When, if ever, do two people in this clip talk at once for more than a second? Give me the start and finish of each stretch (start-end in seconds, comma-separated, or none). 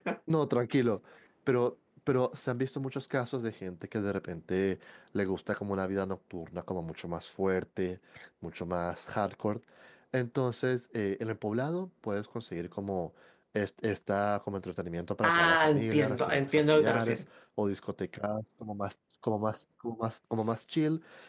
15.2-17.2